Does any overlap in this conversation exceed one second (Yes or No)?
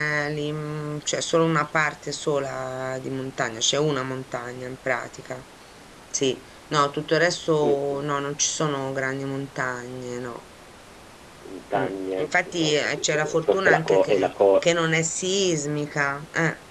Yes